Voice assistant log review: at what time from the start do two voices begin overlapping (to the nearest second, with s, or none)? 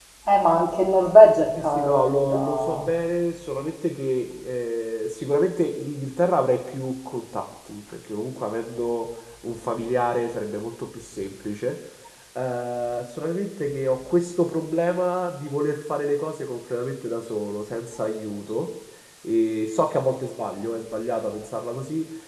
2 s